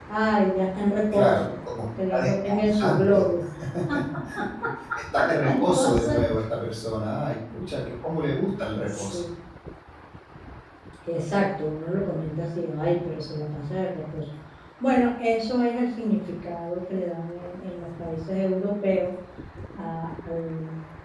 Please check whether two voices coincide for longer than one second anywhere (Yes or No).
Yes